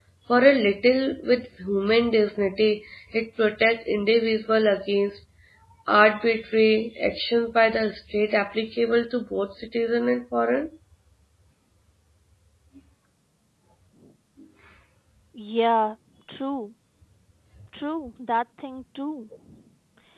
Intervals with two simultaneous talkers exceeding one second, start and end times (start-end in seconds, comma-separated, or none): none